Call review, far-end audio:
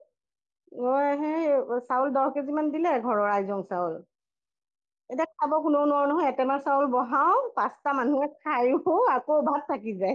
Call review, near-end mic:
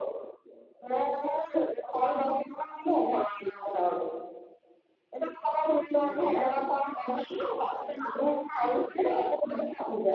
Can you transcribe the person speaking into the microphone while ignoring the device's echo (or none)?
এনেকুৱাহে